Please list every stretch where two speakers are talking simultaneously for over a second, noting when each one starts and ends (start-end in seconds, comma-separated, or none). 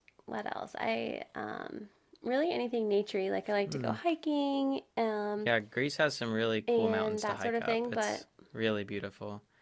6.8-8.2